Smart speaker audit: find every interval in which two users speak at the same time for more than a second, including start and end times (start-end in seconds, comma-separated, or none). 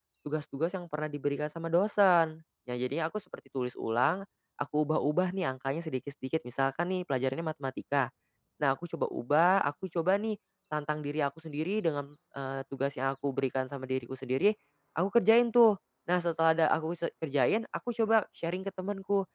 none